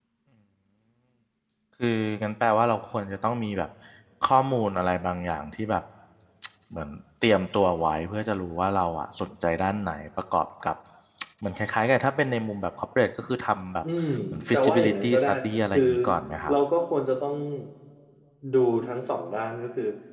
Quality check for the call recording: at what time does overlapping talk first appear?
15 s

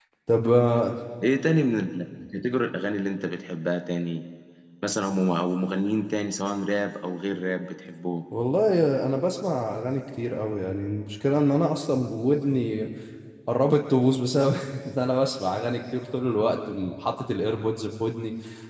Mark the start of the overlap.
none

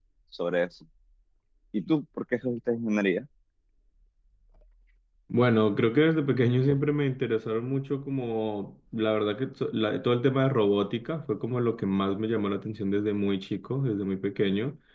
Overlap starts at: none

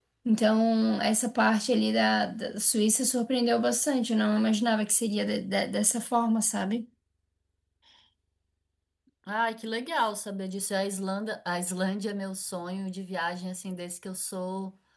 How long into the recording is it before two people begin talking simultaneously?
none

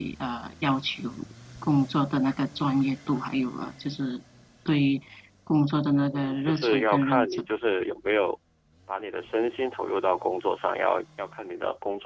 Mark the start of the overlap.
6 s

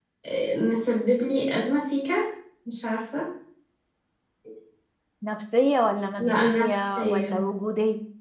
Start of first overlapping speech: 6 s

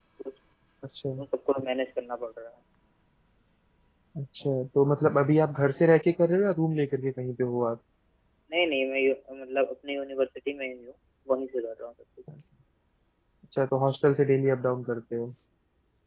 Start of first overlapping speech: none

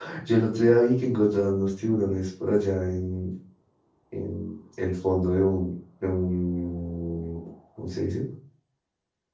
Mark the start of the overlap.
none

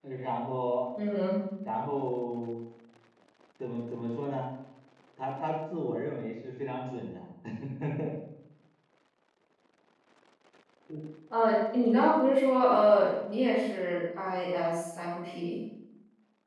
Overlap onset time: none

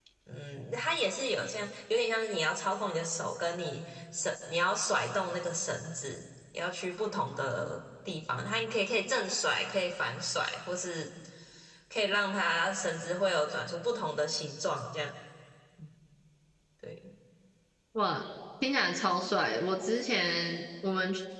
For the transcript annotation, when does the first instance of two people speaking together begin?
none

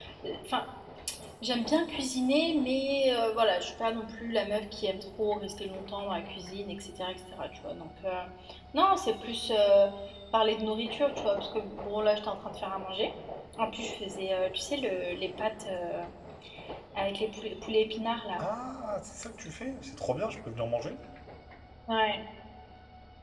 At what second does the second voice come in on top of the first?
none

